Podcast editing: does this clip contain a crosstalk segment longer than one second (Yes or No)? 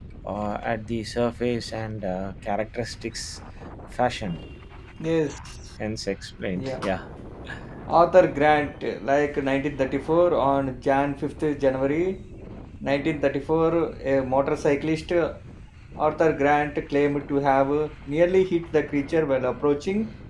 No